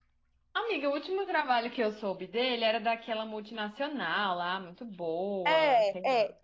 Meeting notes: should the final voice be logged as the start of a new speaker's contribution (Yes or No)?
Yes